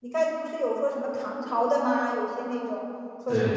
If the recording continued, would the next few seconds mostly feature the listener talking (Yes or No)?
No